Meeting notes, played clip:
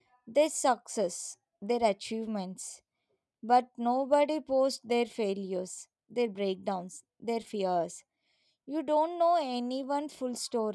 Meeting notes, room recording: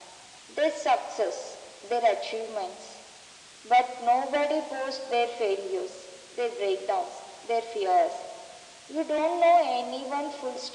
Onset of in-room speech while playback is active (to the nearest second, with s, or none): none